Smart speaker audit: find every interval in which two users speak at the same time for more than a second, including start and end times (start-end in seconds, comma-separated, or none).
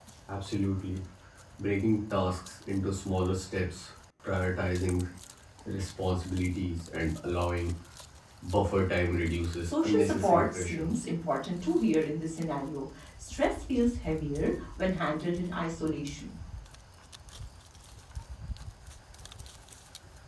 9.7-10.9